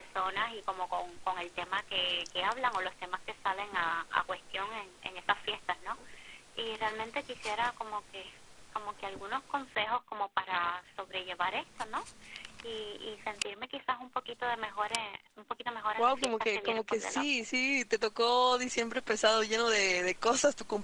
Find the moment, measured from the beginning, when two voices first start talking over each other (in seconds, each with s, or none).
16.0 s